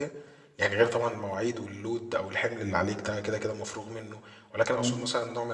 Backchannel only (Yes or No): Yes